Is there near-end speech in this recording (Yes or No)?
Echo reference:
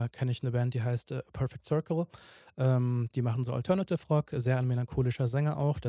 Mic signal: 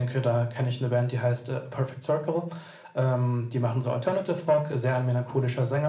No